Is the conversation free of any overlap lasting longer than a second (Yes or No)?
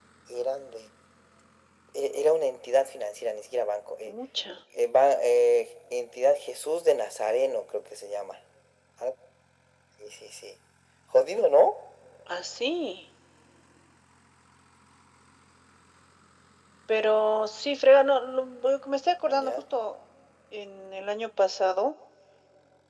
Yes